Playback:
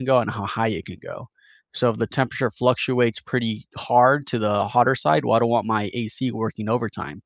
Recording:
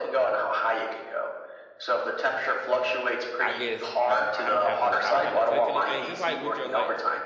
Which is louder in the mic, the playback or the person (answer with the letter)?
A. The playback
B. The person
A